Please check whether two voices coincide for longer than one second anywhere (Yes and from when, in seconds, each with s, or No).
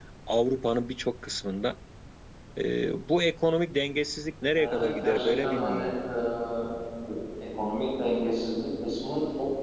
Yes, from 4.6 s